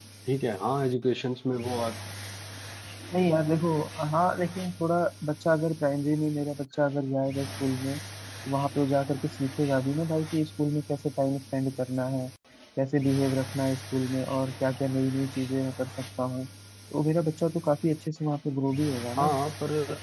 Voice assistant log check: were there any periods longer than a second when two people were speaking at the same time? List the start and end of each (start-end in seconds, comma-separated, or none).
none